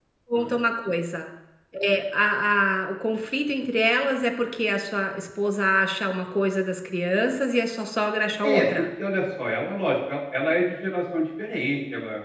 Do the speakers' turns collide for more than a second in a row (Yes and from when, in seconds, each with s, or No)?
No